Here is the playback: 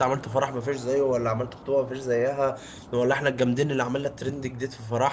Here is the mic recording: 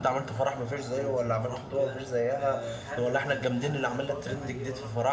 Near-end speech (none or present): present